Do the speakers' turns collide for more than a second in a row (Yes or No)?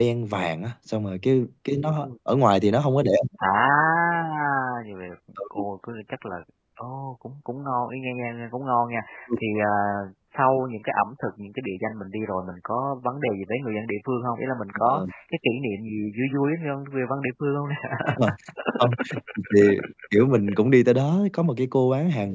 No